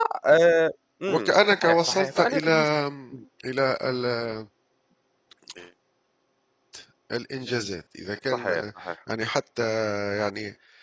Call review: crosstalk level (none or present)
present